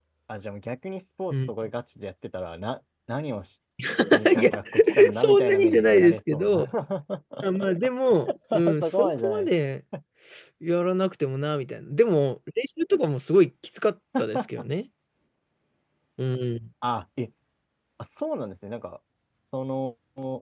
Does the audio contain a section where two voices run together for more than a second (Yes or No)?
Yes